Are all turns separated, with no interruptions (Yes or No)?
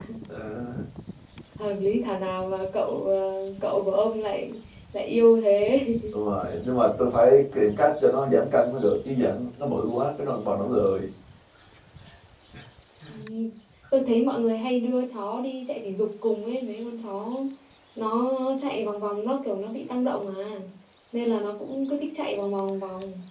Yes